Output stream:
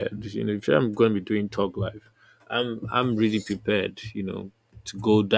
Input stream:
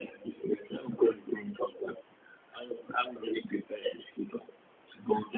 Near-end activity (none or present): none